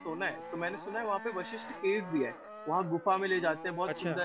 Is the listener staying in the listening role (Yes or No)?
Yes